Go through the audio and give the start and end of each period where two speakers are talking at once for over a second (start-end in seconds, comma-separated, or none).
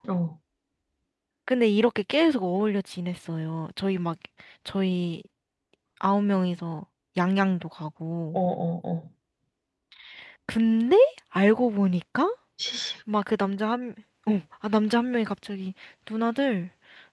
none